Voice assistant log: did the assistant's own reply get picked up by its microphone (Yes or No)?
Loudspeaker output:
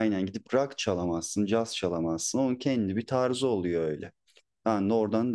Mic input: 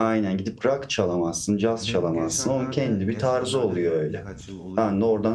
Yes